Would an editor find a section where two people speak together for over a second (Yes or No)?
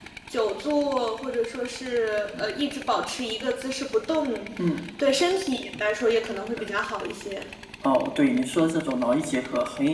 No